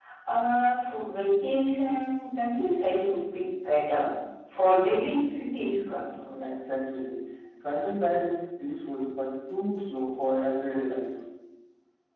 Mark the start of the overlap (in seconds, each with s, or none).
none